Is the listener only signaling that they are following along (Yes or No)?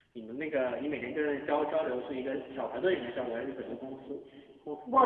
No